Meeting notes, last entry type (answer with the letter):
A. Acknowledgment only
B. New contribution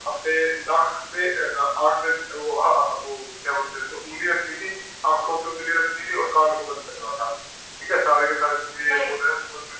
A